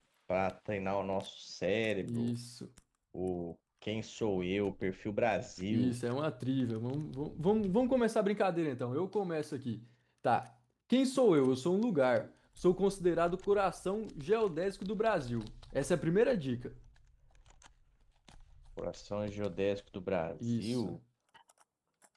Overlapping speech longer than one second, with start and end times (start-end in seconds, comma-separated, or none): none